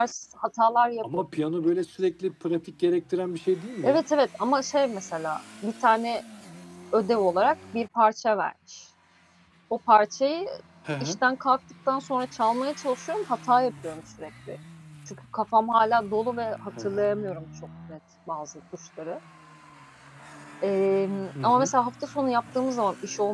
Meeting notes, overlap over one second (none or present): none